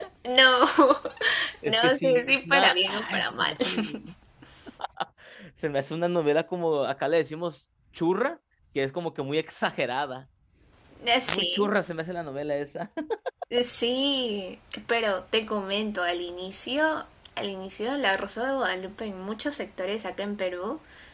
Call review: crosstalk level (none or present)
present